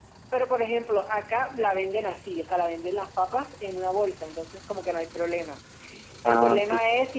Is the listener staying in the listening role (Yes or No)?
Yes